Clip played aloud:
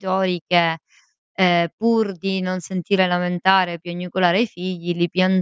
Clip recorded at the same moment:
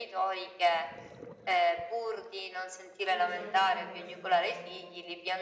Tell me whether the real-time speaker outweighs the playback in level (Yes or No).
No